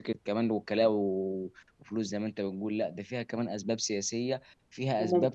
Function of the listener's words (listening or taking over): listening